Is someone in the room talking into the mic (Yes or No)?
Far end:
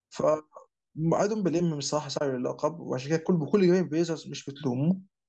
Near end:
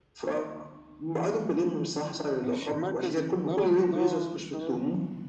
Yes